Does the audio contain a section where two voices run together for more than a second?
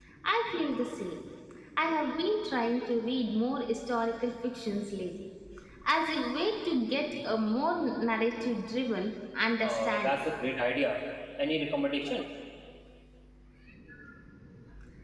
No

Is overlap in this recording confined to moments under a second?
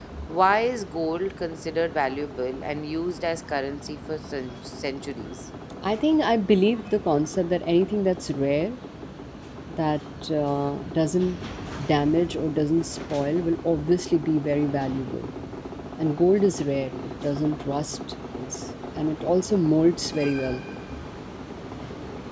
Yes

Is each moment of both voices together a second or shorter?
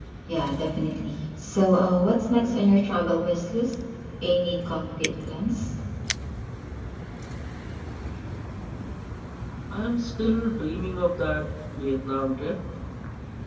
Yes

